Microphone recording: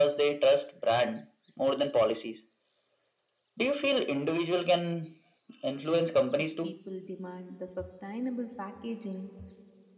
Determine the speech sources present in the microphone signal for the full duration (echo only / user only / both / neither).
both